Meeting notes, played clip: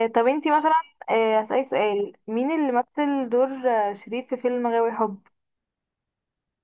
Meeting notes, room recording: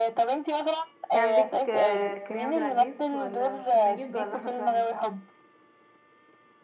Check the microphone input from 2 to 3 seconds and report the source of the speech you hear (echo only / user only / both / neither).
both